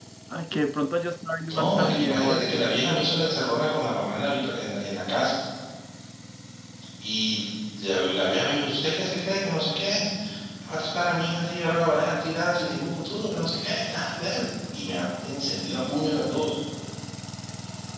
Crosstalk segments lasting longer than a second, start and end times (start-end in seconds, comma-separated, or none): 1.5-2.8